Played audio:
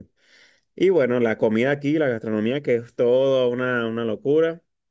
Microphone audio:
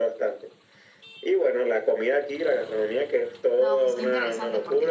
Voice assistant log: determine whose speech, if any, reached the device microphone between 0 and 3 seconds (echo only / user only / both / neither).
echo only